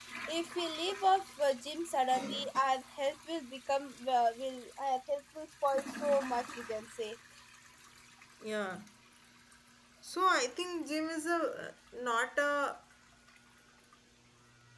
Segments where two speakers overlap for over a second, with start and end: none

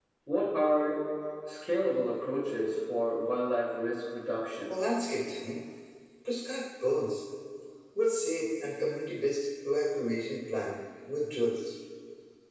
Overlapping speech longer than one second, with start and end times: none

